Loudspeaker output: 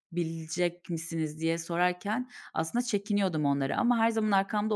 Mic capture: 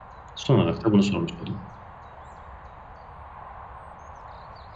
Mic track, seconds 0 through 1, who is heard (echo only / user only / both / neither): user only